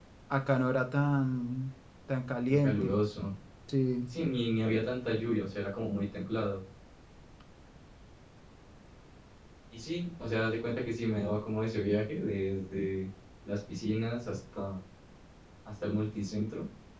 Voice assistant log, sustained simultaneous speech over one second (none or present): none